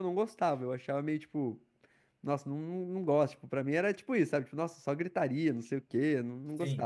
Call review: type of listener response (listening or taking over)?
listening